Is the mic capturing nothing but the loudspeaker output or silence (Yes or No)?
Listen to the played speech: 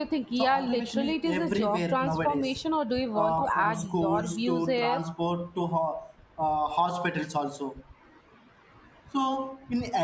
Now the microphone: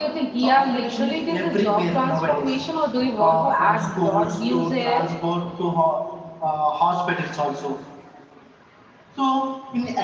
Yes